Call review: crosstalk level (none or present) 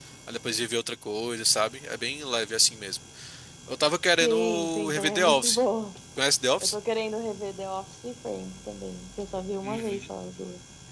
present